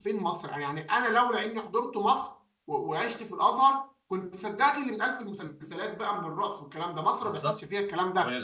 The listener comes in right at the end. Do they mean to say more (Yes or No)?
Yes